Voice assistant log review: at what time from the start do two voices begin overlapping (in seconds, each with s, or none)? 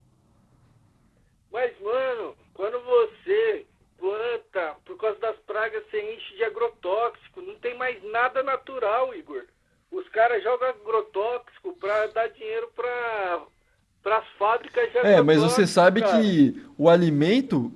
15.0 s